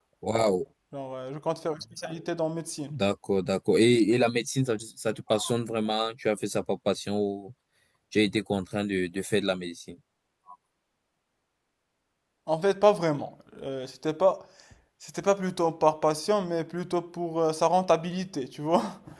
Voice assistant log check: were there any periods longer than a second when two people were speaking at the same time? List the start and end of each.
none

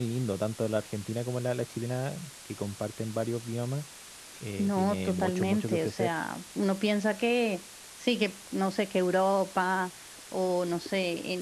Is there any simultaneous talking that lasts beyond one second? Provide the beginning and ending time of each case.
4.6-6.1

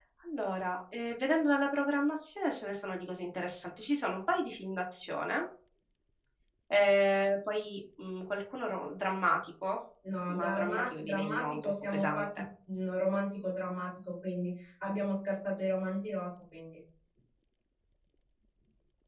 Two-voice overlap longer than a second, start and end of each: 10.3-12.2

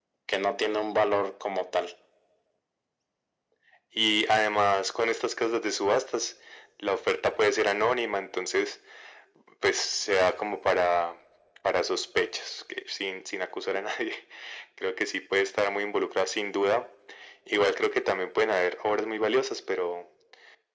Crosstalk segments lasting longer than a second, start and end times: none

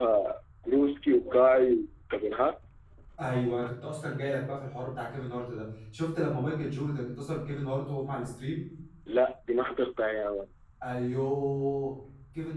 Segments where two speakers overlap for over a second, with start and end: none

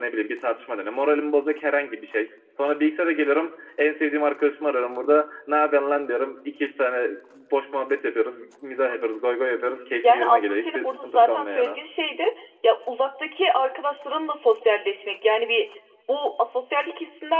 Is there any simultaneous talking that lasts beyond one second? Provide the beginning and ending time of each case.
10.0-11.8

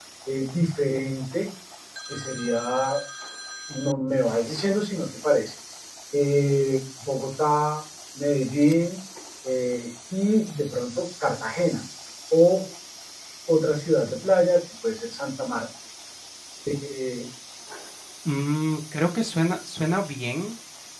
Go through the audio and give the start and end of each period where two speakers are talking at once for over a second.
none

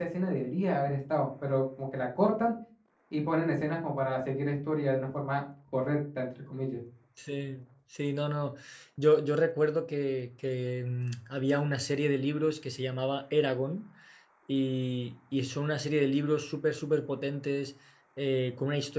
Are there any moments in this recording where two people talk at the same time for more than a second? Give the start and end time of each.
none

